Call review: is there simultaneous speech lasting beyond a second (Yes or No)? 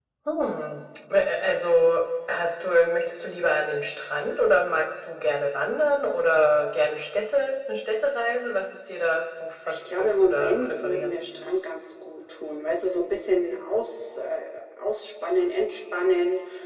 Yes